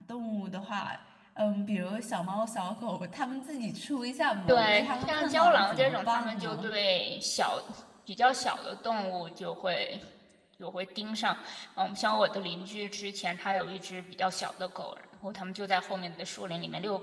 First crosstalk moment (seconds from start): 4.5 s

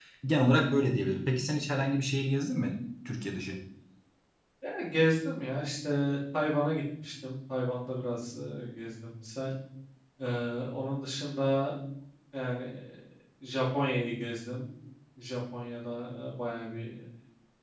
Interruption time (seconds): none

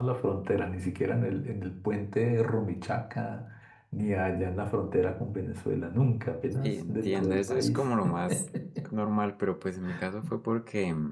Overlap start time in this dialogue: 6.6 s

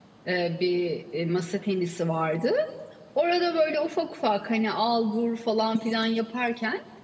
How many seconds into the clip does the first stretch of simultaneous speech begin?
none

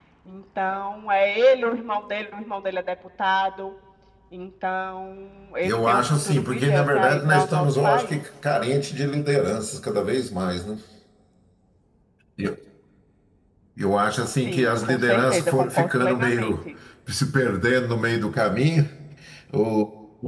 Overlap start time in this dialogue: 5.6 s

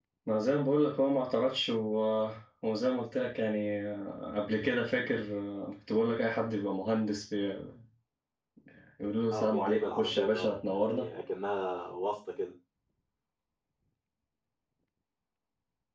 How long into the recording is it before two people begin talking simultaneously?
9.3 s

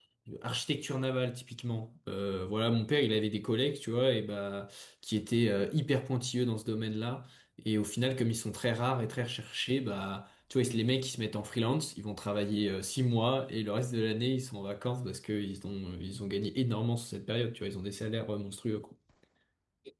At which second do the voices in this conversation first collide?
none

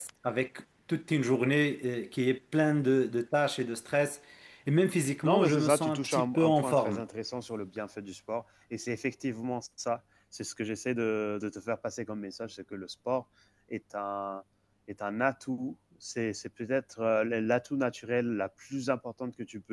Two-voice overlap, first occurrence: 5.2 s

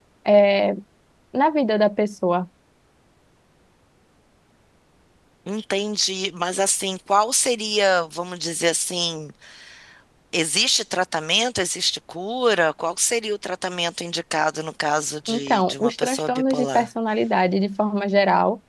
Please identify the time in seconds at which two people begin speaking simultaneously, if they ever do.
15.3 s

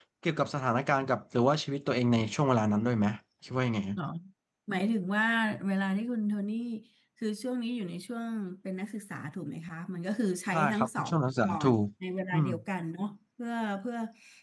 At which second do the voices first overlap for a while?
10.5 s

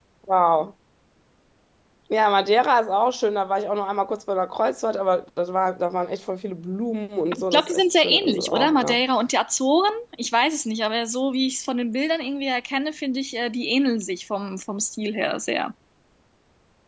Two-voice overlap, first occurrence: 7.3 s

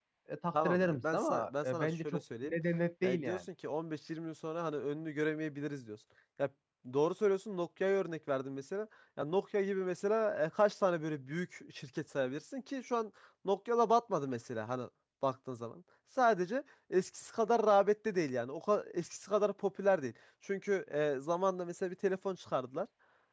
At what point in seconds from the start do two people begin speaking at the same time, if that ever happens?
0.6 s

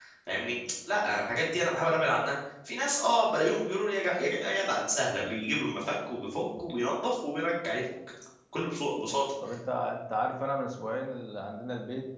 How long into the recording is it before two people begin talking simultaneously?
none

